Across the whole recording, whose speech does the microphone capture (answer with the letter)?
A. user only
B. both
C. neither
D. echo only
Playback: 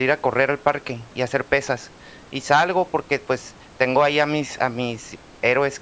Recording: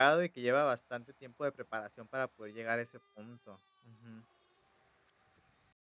A